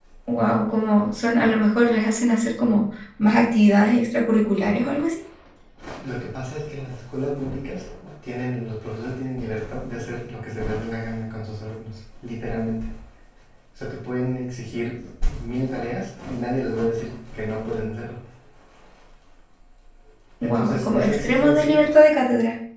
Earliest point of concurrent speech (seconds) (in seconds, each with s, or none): 20.4 s